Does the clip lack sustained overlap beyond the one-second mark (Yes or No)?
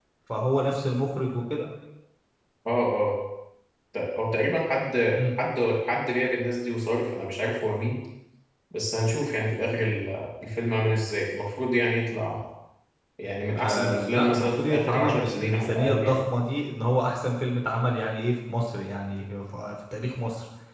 No